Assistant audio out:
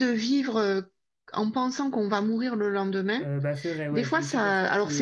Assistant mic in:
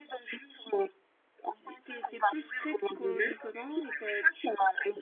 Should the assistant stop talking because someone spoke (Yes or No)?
Yes